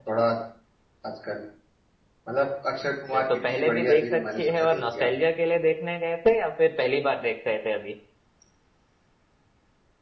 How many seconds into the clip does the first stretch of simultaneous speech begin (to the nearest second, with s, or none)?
3 s